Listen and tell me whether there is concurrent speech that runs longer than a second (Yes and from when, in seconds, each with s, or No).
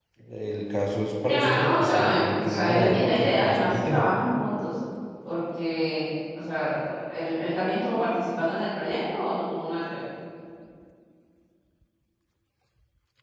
Yes, from 1.3 s